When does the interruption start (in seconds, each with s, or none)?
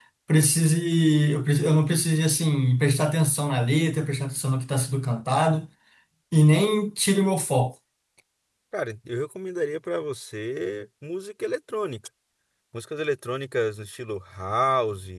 none